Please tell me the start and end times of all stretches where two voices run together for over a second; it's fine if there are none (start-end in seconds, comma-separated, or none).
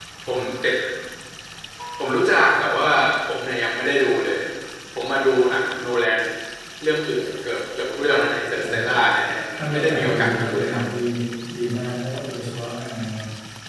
9.6-10.8